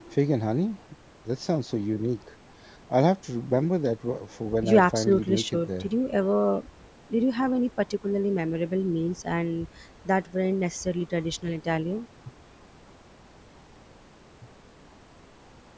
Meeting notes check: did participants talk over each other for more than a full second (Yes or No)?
Yes